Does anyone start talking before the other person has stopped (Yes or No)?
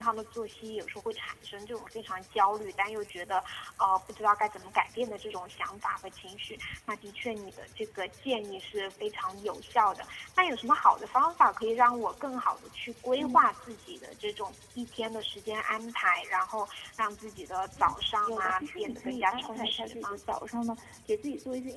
Yes